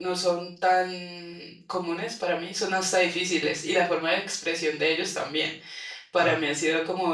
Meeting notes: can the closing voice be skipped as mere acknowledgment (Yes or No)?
Yes